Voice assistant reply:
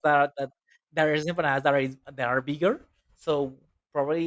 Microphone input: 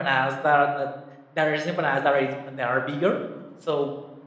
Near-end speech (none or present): none